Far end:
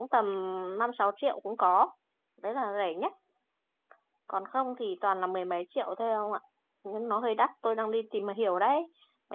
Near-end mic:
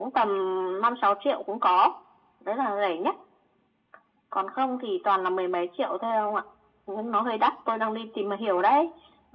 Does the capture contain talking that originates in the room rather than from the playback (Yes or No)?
No